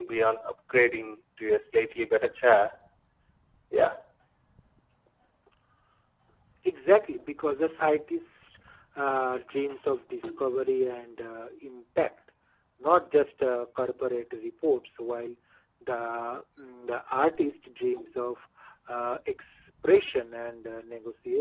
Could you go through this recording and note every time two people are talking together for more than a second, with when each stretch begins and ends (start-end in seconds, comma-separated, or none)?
none